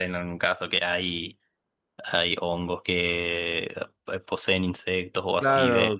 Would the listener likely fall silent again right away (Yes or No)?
No